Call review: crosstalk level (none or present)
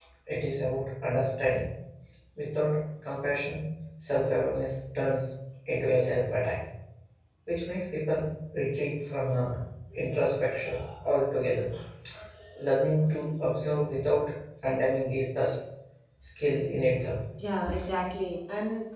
none